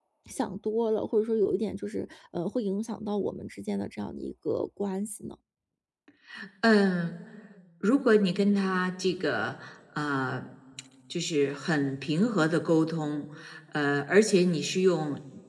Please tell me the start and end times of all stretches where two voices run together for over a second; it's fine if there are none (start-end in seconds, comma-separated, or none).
none